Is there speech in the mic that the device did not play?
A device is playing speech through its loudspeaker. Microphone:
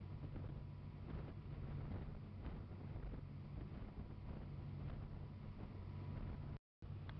No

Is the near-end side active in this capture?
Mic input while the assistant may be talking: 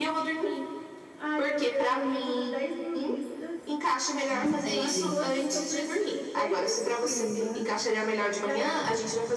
Yes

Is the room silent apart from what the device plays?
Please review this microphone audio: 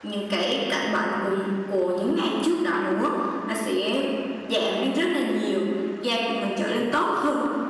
No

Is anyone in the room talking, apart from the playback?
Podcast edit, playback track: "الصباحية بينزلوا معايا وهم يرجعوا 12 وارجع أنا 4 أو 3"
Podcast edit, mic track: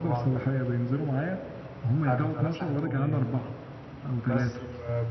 Yes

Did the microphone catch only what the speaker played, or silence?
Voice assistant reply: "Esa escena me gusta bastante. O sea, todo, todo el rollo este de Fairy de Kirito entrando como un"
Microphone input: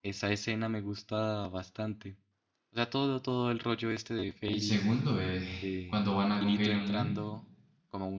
No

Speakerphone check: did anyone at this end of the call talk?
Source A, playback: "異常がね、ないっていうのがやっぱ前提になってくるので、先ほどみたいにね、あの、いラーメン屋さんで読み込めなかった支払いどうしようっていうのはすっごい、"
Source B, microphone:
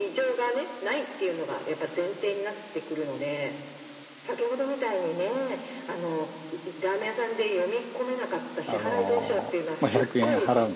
Yes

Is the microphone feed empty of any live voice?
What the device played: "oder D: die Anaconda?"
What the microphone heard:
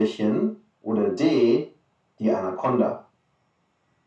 Yes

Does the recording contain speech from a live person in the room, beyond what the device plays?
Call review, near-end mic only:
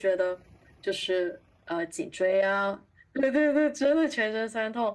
No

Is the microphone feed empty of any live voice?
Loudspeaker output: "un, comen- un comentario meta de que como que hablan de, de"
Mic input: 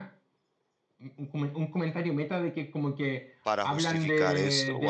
No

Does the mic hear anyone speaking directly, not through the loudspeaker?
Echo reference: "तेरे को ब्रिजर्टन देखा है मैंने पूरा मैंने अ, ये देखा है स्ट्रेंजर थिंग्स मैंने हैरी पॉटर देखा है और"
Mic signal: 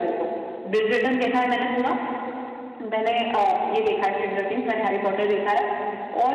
No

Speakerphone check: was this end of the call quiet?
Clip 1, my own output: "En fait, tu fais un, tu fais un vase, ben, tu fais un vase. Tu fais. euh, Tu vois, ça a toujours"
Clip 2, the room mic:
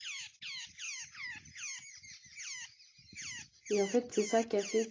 No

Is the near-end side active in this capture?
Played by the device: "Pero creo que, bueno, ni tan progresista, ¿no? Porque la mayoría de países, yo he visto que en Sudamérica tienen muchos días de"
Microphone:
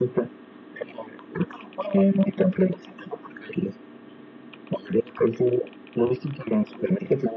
No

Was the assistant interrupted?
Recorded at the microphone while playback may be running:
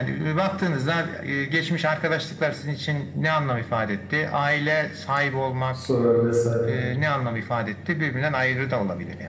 Yes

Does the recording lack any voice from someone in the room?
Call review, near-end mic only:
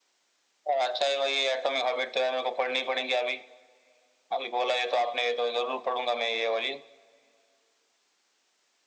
Yes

